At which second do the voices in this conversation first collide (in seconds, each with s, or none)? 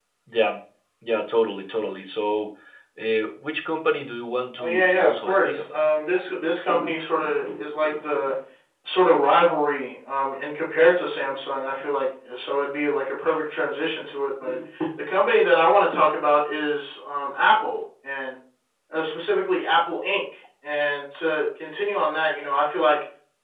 4.6 s